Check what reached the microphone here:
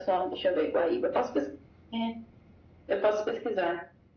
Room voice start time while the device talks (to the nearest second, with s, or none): none